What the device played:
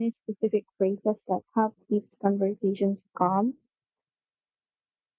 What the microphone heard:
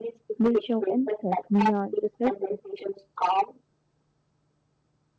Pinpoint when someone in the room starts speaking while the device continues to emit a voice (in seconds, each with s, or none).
0.4 s